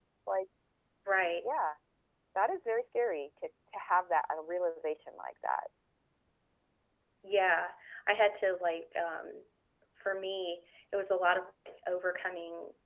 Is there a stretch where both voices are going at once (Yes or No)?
No